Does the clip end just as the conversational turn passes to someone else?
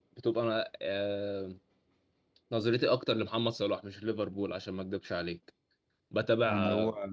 No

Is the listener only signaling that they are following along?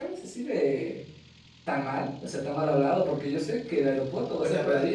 No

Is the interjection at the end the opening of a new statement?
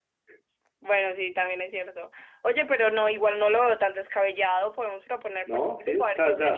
Yes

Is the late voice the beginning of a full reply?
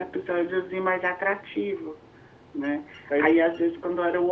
No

